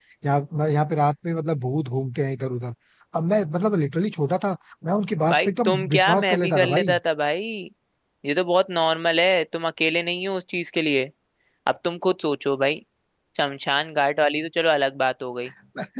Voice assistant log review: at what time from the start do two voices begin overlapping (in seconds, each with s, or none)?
5.3 s